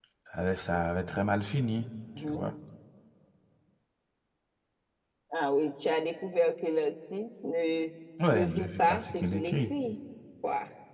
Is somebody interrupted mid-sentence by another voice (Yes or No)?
Yes